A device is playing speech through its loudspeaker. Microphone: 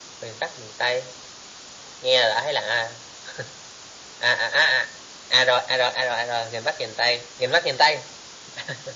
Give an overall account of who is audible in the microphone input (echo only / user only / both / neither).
echo only